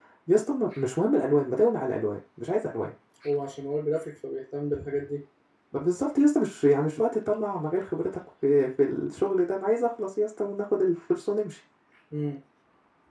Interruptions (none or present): none